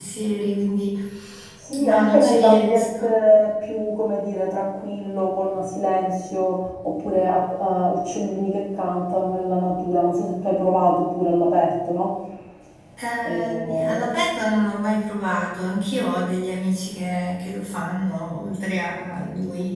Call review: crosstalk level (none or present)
present